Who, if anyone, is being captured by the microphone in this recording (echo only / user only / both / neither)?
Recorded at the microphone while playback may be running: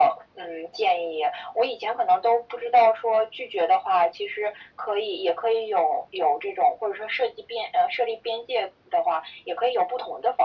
echo only